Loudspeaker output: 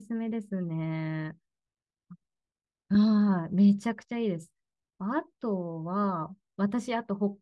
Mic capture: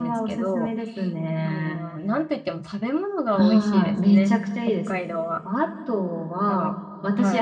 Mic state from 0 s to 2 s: both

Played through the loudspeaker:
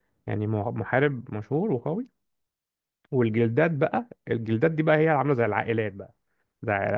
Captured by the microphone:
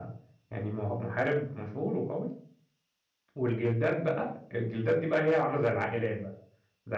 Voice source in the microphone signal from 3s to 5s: echo only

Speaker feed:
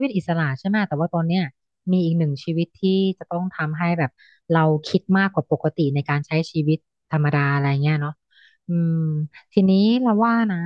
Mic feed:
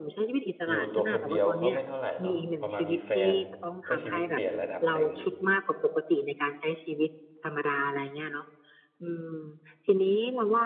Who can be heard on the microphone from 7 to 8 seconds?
echo only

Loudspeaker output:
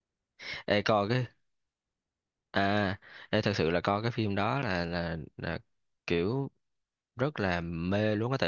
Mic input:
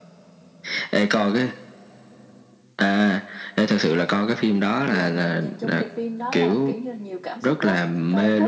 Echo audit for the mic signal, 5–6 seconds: both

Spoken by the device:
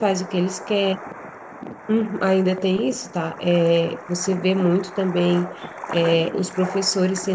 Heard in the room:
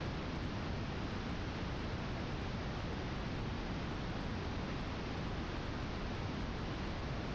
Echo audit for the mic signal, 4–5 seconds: neither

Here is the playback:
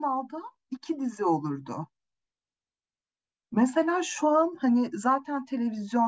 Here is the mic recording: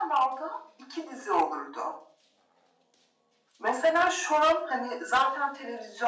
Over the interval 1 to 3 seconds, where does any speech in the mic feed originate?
echo only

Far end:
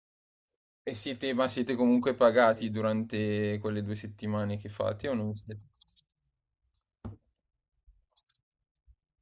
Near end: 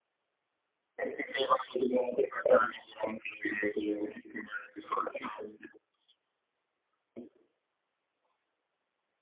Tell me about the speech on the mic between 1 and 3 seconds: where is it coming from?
echo only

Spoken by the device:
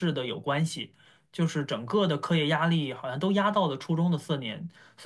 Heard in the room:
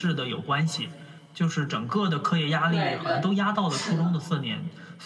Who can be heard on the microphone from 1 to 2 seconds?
echo only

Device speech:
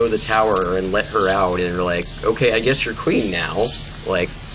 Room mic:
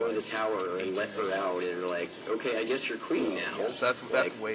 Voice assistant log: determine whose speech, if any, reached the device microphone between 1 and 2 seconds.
both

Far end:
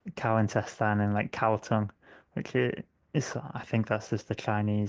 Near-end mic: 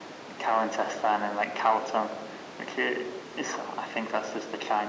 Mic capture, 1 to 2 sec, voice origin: echo only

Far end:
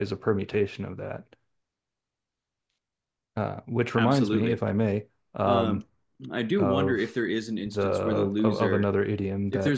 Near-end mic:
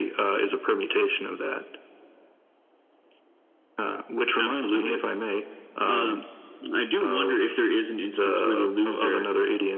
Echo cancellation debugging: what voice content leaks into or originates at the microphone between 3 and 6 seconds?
echo only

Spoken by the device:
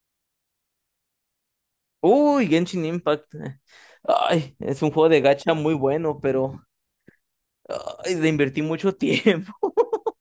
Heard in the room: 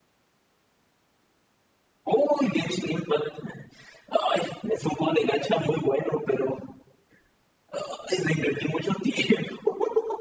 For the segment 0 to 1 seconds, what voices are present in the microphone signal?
neither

